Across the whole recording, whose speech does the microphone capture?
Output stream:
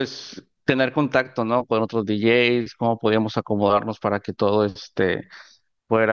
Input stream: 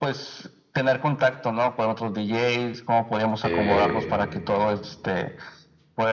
both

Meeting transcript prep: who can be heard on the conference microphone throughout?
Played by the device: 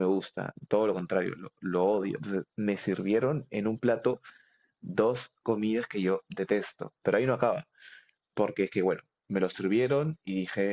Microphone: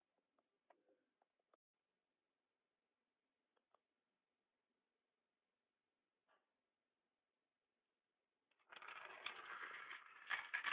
neither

